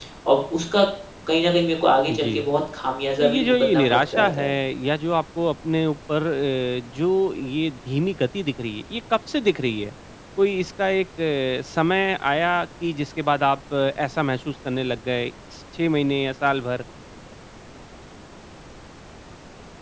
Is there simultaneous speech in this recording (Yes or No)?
Yes